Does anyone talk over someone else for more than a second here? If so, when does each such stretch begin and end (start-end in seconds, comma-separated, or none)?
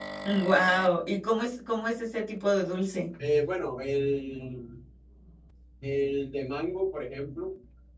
none